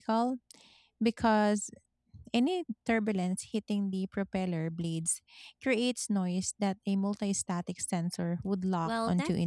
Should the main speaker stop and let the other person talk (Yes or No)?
Yes